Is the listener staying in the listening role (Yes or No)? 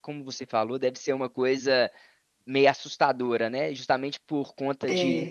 Yes